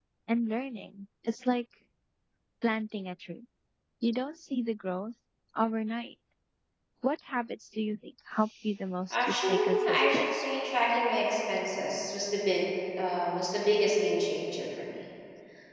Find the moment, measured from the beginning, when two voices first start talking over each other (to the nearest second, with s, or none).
9 s